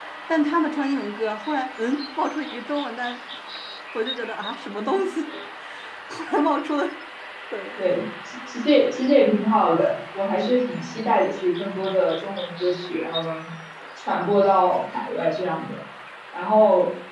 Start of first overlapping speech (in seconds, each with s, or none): none